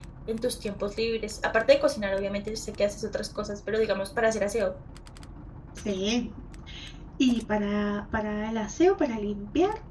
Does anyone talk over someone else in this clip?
No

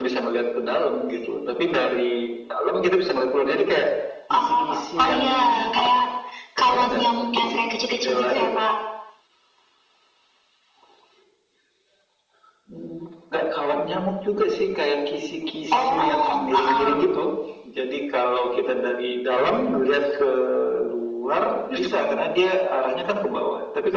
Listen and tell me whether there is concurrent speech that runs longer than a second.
Yes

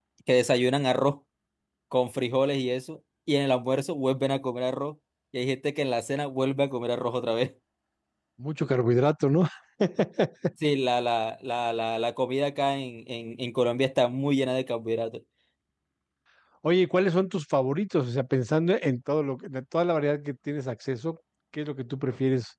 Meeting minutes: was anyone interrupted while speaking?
No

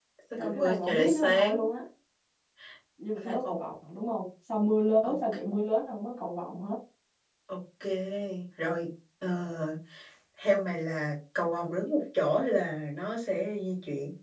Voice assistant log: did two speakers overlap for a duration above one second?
Yes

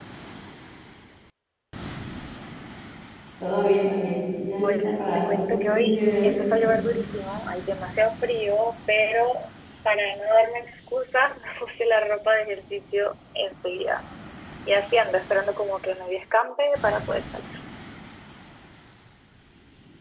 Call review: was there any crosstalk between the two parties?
Yes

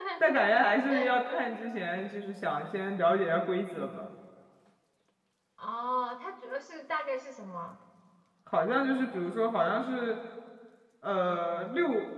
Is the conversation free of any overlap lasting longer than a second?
Yes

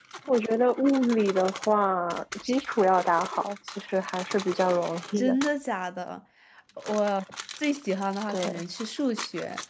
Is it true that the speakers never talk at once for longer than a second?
Yes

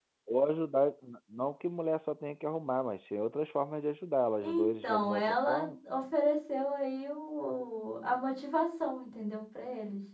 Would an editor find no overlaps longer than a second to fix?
No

